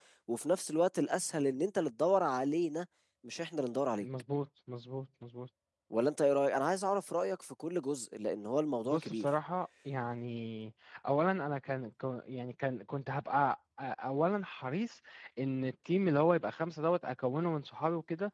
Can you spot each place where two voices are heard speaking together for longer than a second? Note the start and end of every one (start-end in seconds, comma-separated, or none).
none